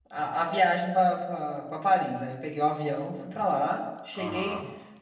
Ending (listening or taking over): listening